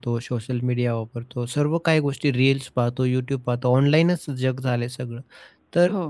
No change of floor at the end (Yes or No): Yes